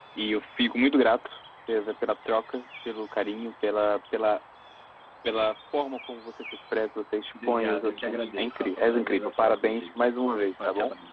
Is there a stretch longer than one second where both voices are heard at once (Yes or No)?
Yes